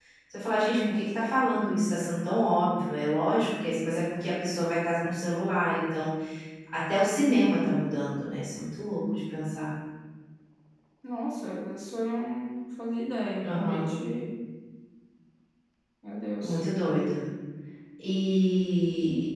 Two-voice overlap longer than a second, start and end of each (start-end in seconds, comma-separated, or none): none